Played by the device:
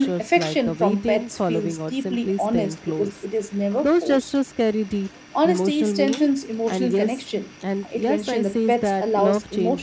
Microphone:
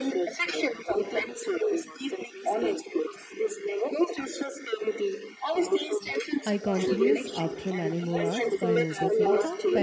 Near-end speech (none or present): present